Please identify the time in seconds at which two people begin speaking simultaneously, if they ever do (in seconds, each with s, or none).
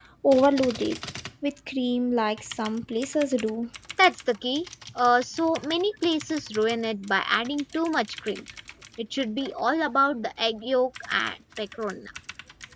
none